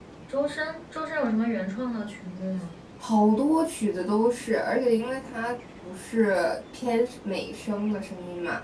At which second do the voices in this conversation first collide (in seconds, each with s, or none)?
none